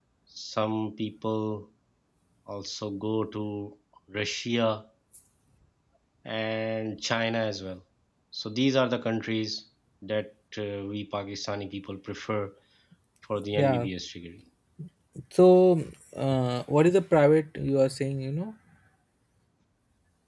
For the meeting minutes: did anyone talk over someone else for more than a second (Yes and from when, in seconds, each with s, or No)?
No